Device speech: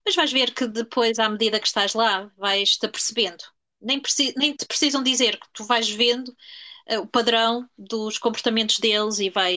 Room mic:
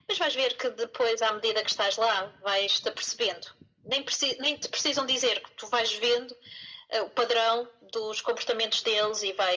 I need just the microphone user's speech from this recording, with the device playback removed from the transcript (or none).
none